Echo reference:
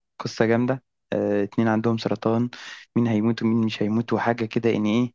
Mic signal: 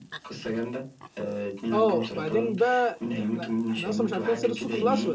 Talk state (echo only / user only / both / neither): both